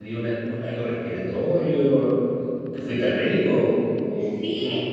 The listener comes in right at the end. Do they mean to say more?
Yes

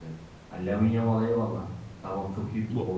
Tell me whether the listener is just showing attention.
Yes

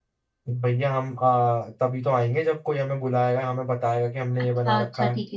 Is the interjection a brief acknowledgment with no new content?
No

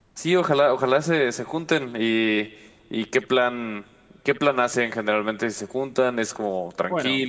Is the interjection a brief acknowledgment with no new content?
No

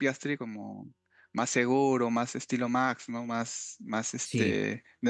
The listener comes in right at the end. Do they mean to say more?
No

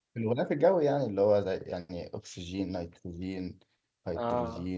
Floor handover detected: Yes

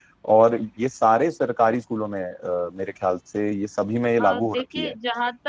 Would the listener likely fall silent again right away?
No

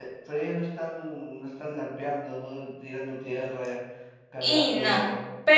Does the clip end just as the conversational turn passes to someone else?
Yes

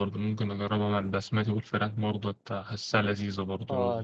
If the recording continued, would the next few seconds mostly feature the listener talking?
Yes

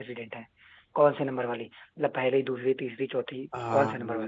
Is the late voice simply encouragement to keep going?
No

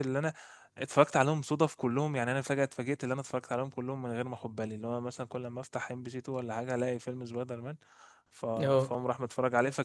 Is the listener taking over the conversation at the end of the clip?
No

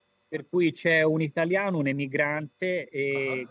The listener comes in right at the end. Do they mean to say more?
No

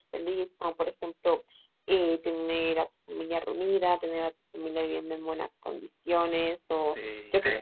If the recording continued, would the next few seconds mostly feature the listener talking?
No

